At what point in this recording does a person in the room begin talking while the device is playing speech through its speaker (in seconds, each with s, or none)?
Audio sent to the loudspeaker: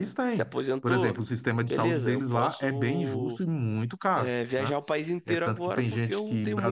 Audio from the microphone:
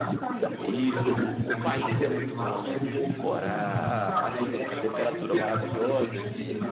0.6 s